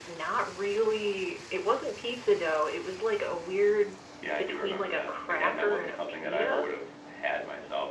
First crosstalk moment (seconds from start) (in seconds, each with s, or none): 4.4 s